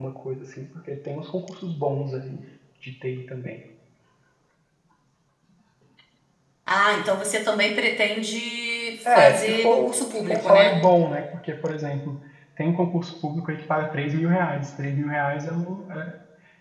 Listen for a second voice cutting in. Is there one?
Yes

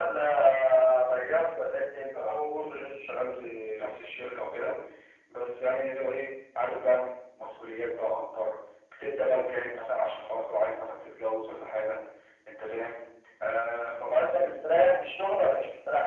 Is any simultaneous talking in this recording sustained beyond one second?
No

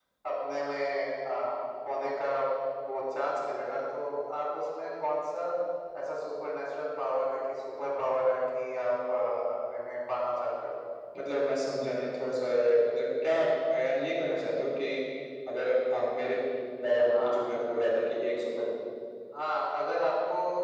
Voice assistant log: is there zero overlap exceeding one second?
Yes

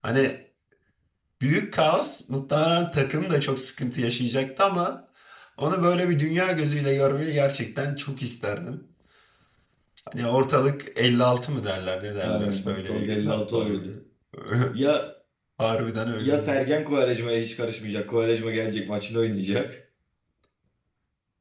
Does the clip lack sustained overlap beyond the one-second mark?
No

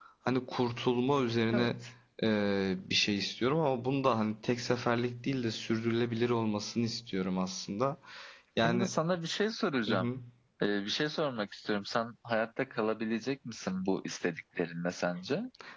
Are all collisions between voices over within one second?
Yes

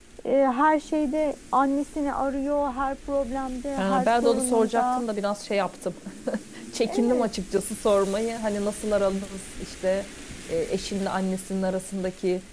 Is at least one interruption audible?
Yes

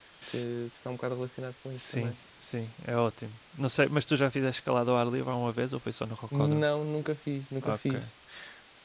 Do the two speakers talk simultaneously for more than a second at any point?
No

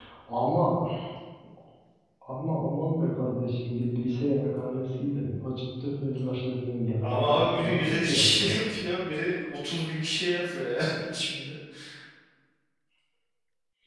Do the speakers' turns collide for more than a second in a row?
Yes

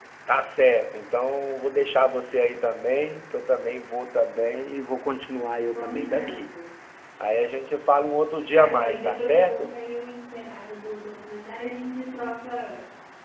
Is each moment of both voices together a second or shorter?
No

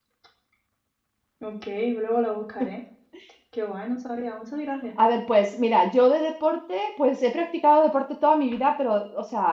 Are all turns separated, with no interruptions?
Yes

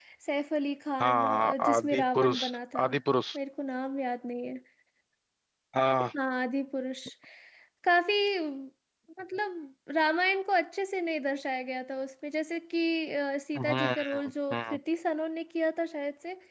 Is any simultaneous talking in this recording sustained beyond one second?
Yes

